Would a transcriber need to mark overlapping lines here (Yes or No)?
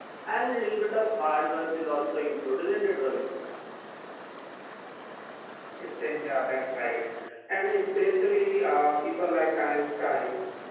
No